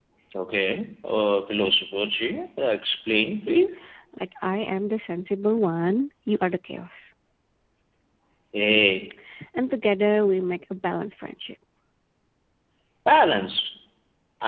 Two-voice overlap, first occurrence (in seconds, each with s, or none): none